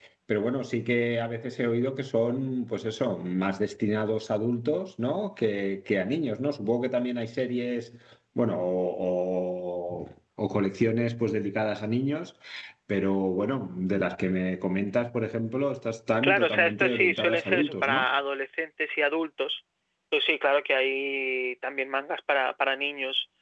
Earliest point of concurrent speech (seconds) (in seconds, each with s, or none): 16.2 s